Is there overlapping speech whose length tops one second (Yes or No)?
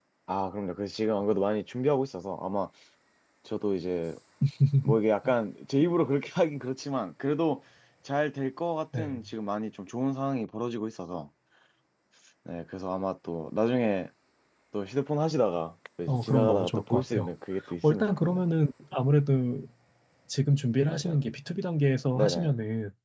Yes